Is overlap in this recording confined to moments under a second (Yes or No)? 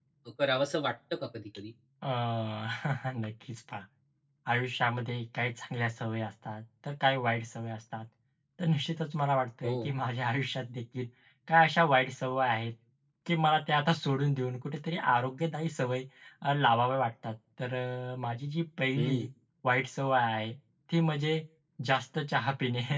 Yes